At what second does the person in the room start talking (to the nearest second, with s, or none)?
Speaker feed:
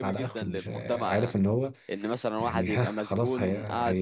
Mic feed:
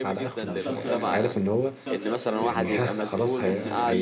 0 s